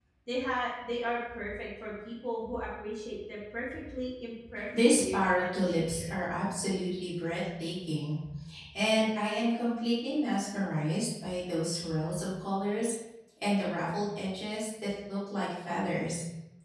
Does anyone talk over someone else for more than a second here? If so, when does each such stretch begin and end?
4.8-6.2

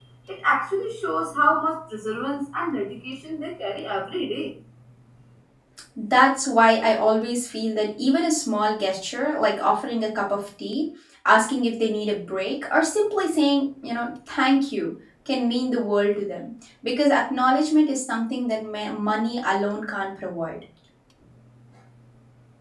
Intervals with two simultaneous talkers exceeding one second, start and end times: none

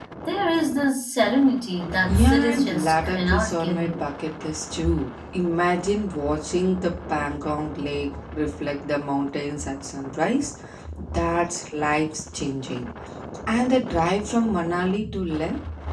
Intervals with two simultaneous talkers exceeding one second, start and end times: 2.0-4.1

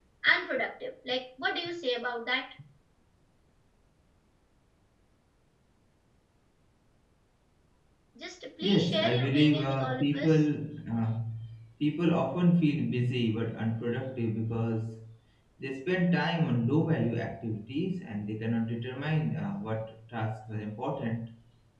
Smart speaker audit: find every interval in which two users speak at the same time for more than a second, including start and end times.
8.6-10.4

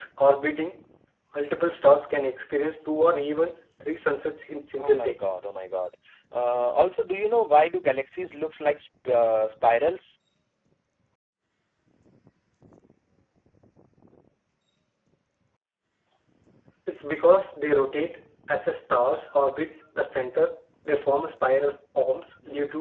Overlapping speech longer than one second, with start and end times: none

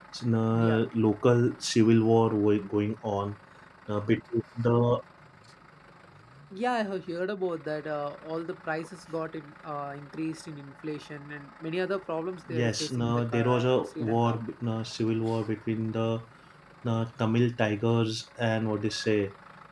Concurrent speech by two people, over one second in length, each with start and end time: 12.5-14.4

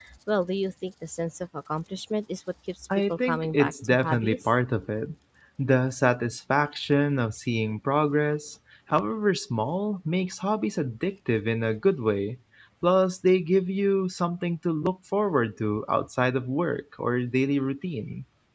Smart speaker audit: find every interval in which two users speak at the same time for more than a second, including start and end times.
3.1-4.5

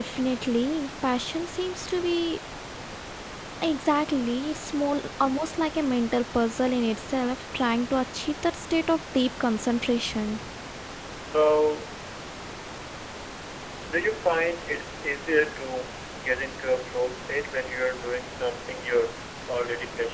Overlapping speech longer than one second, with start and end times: none

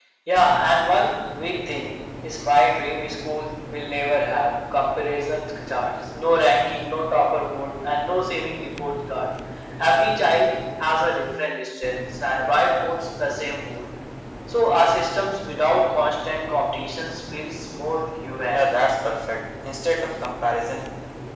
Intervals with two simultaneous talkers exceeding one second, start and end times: none

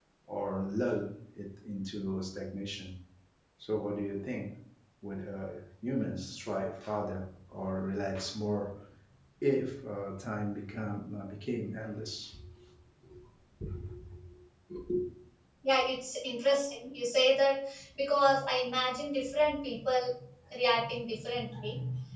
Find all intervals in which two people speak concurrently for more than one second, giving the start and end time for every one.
none

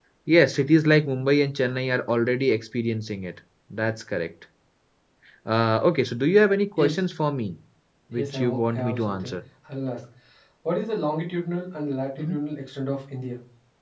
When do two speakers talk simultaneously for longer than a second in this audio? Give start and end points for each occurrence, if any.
8.1-9.3

